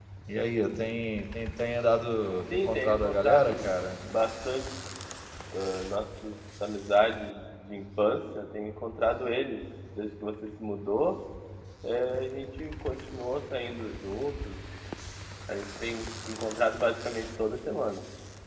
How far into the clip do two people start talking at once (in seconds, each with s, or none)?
2.5 s